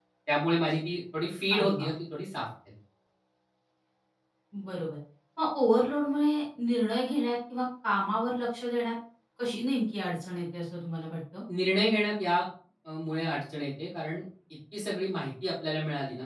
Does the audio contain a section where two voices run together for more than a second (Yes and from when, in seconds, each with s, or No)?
No